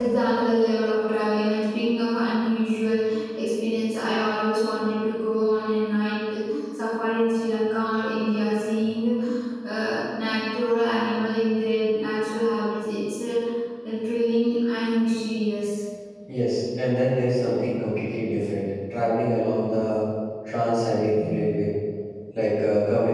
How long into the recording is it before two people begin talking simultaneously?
none

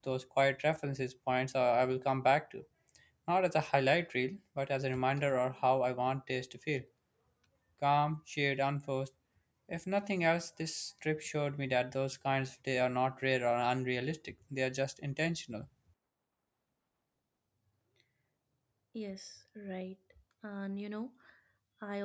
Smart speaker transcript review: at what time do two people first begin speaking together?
none

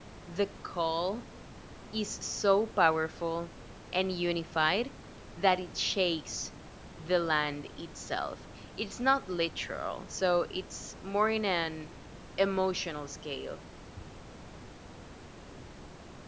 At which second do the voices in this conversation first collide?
none

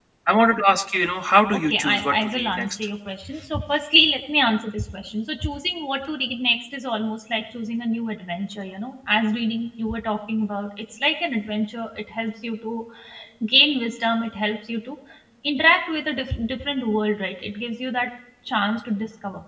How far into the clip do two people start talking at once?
1.5 s

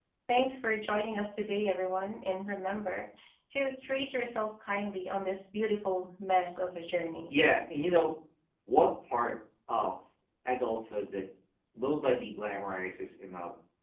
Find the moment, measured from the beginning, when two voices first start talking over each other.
none

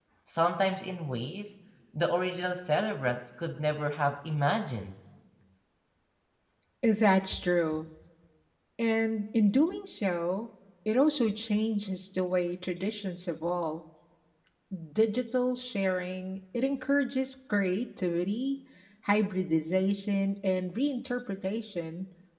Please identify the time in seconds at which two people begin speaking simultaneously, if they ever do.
none

